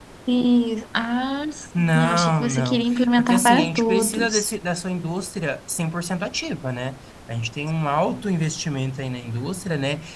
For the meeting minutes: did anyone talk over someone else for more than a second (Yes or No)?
Yes